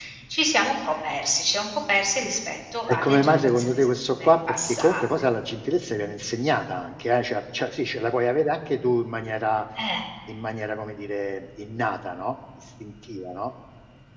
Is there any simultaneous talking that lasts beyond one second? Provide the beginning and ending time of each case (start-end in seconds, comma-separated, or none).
2.9-5.0